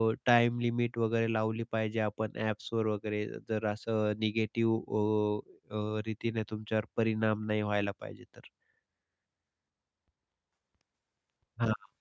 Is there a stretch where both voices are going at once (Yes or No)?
No